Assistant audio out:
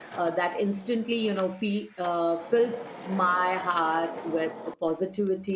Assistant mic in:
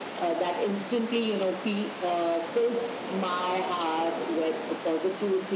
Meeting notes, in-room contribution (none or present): none